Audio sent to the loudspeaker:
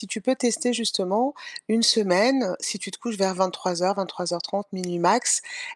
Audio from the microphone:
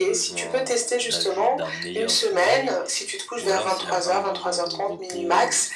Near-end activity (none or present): present